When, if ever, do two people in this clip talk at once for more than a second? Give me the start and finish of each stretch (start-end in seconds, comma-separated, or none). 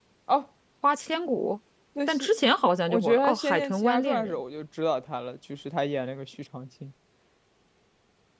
2.9-4.4